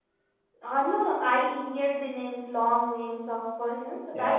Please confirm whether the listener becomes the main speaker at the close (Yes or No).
Yes